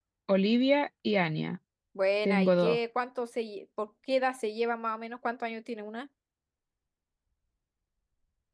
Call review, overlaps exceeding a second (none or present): none